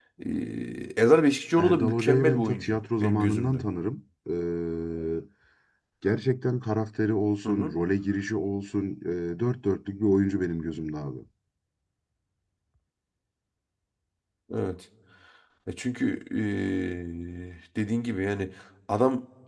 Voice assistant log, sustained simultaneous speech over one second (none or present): present